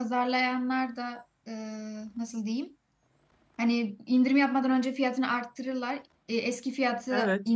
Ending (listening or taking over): listening